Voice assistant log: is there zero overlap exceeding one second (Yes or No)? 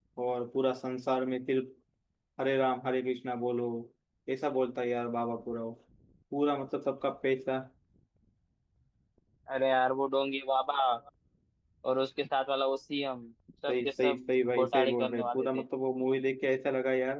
No